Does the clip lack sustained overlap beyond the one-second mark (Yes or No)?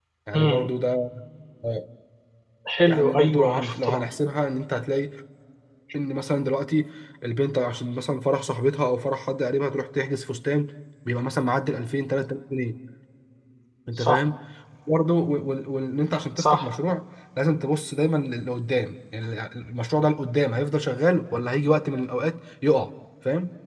No